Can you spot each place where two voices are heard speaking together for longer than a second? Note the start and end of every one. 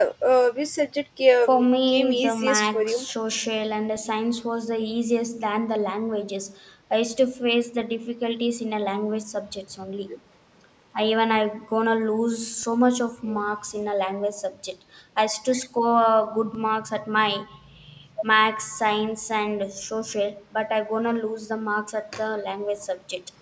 1.5-3.0

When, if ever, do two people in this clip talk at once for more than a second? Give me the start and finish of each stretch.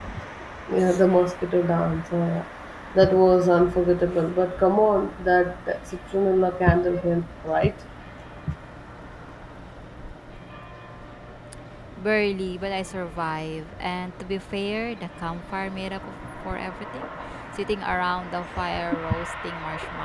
none

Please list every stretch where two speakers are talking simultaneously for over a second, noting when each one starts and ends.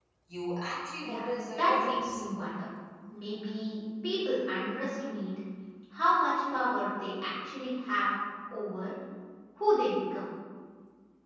1.0-2.3

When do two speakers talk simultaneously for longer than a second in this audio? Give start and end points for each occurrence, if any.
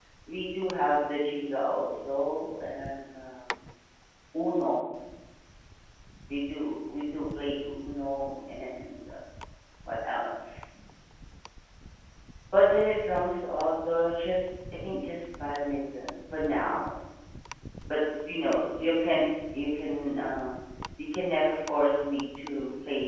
none

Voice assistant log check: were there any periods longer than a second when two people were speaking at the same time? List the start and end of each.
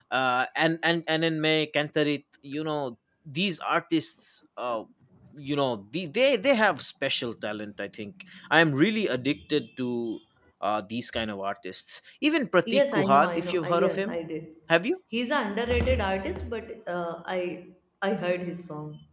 12.7-14.2

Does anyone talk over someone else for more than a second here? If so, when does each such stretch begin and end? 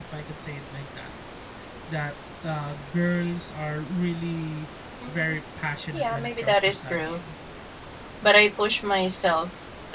5.9-7.2

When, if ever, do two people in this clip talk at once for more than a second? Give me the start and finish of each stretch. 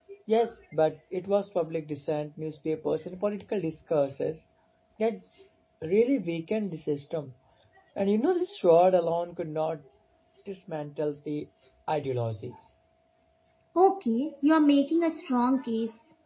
none

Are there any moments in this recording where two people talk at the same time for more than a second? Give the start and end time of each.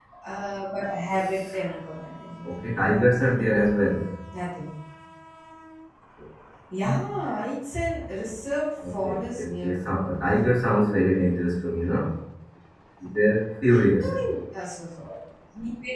8.9-10.2

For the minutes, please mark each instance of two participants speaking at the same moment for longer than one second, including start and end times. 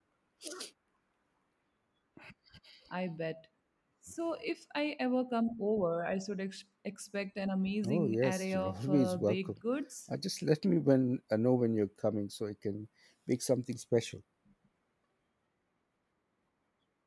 7.9-9.5

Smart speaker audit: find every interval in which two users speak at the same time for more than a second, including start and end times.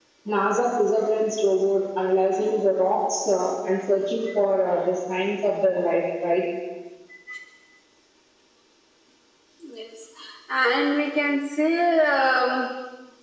none

